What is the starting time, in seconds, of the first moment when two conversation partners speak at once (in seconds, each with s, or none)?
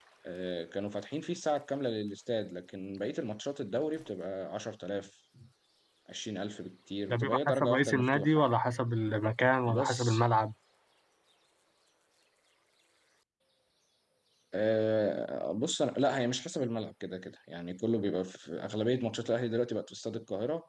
7.1 s